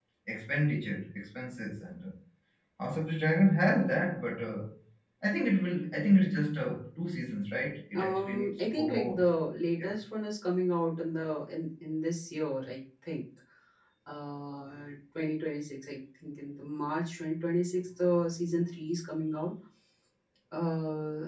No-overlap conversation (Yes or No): No